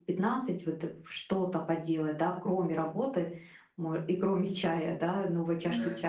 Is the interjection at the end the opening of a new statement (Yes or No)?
No